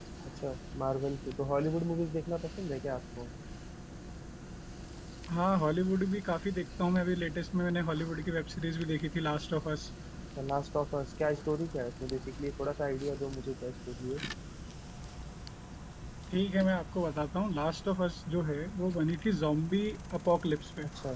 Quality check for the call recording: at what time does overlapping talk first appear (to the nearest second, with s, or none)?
none